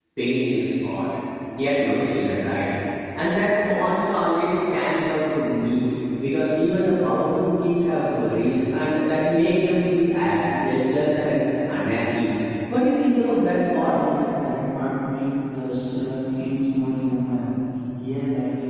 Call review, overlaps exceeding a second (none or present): none